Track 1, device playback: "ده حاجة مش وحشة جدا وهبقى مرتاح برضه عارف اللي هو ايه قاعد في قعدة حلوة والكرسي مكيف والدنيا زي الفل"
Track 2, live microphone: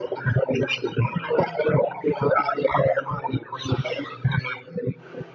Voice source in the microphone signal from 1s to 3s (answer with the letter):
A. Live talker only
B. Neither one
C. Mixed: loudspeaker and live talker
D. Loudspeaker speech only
D